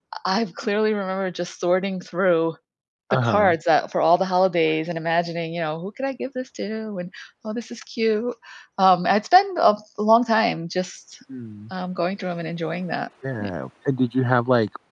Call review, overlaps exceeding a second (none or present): none